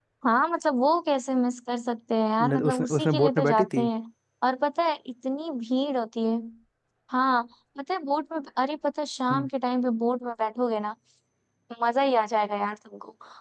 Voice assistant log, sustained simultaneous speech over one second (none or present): present